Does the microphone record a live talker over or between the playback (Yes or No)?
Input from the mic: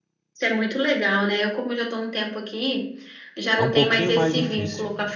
Yes